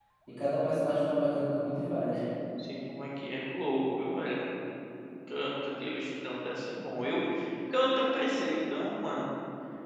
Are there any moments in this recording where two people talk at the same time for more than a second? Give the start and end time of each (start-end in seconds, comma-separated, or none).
none